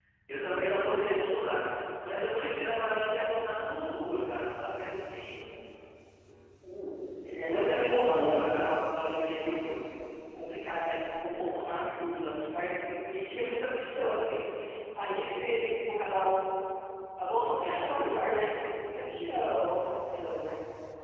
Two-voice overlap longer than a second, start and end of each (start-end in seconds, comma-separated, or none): 7.2-8.6